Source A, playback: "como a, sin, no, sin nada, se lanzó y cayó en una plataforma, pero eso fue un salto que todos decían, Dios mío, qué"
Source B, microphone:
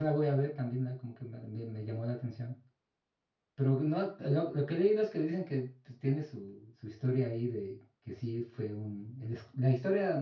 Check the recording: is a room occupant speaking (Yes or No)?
Yes